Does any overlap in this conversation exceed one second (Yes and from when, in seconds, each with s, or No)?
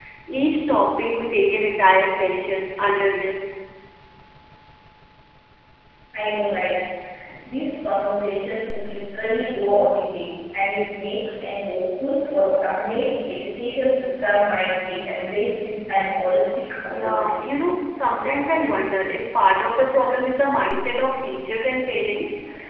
No